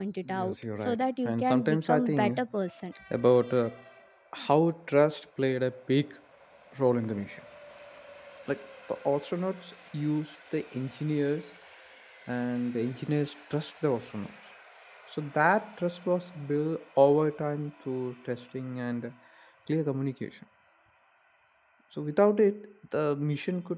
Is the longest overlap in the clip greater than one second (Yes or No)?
Yes